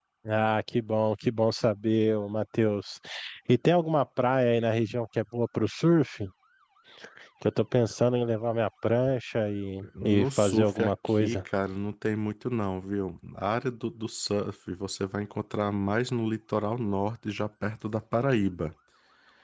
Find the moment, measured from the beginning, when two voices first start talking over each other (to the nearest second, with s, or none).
10 s